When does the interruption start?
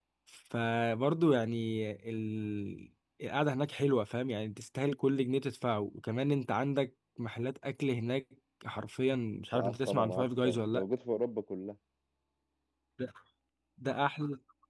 9.5 s

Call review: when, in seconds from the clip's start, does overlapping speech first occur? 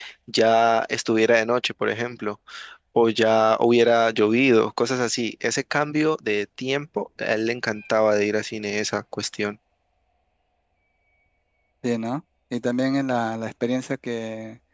none

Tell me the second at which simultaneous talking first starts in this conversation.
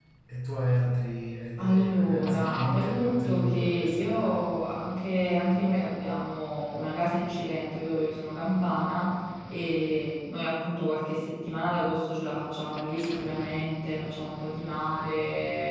1.6 s

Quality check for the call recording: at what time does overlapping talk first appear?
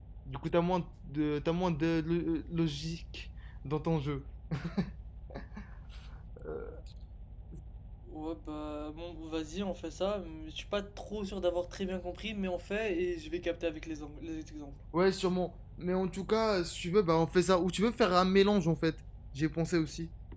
none

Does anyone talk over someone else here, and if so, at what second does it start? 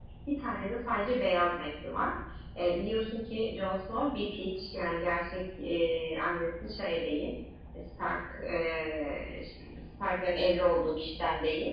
none

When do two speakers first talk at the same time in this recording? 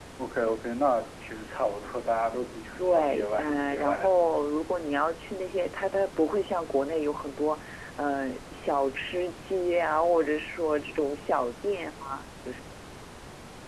2.8 s

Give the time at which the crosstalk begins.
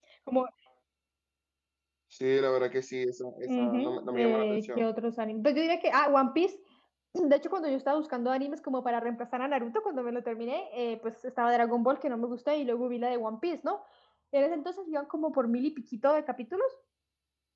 3.4 s

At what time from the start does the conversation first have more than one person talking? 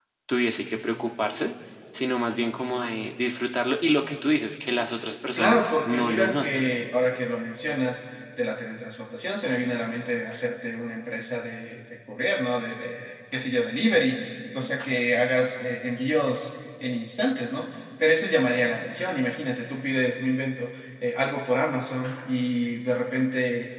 5.4 s

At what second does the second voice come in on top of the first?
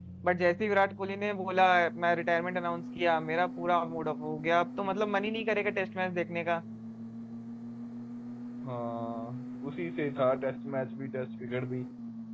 none

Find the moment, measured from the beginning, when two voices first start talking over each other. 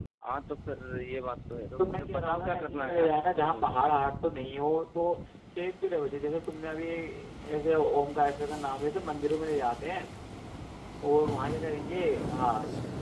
1.8 s

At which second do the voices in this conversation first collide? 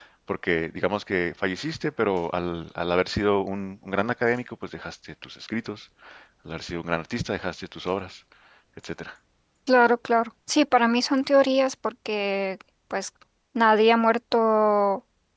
none

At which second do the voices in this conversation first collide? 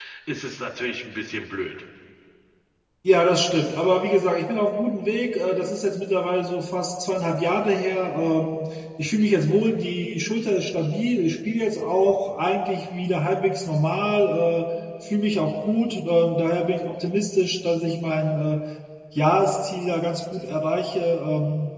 none

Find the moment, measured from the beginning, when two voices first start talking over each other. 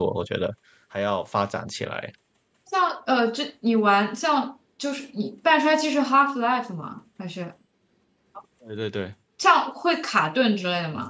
none

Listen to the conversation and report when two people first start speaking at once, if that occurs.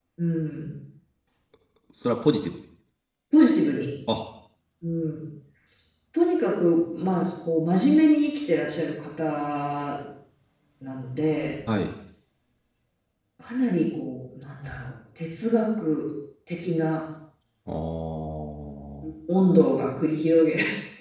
none

